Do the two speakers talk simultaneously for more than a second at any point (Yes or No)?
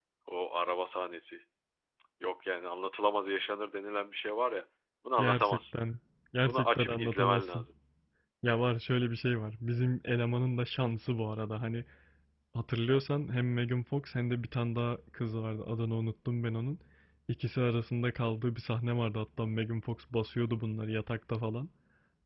Yes